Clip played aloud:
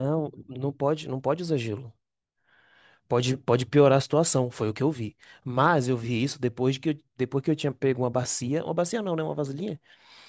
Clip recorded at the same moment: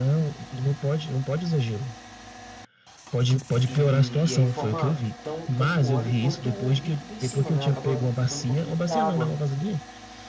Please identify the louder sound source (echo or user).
echo